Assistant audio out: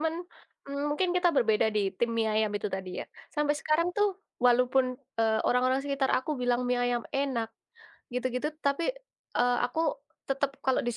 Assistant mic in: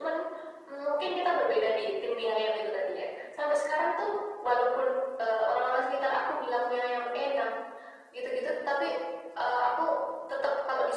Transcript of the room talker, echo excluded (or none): none